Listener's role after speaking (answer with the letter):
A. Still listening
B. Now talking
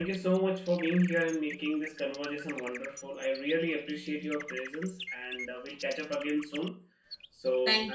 B